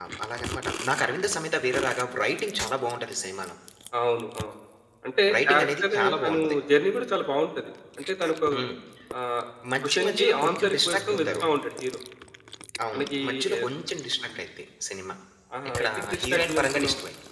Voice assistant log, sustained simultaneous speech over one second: present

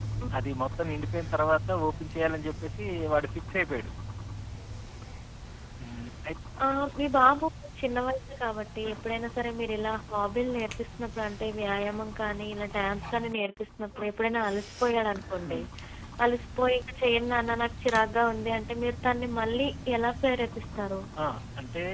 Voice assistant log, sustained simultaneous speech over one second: none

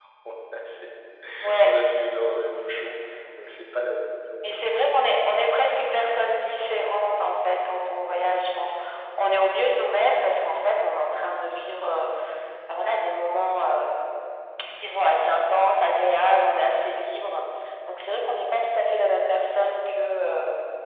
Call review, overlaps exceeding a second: none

